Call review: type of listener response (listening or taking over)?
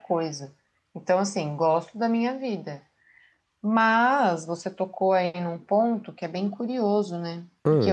listening